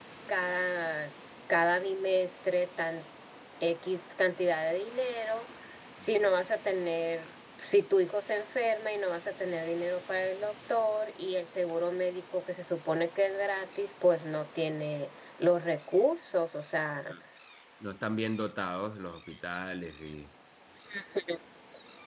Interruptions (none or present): none